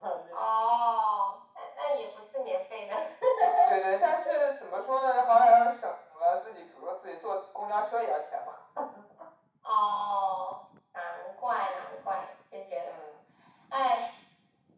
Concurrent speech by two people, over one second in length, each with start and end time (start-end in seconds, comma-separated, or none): none